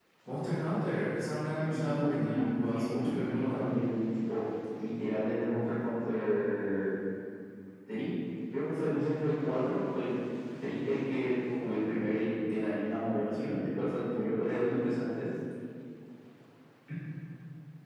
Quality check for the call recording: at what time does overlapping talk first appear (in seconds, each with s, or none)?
1.7 s